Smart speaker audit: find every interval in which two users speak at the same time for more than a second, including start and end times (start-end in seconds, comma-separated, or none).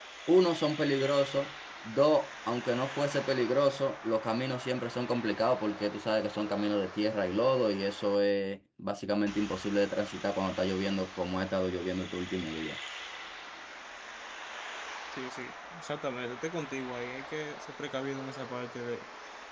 none